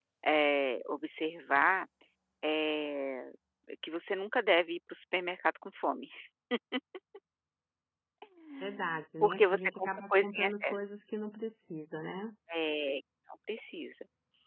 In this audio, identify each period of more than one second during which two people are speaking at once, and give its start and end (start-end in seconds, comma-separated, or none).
9.2-10.8